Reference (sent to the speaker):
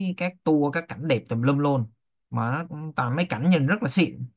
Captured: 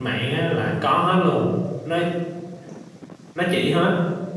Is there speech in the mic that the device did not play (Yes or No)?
Yes